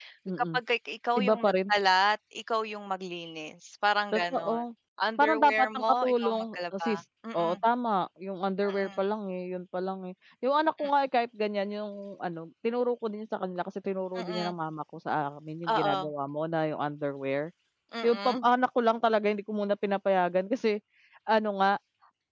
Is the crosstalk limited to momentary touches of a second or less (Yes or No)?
No